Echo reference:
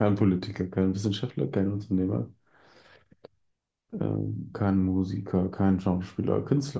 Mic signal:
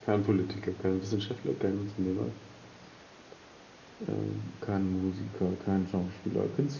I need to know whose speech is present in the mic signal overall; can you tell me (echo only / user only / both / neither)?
echo only